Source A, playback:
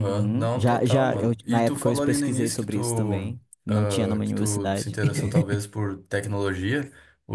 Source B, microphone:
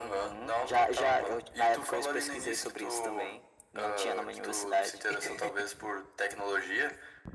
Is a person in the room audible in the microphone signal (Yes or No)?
No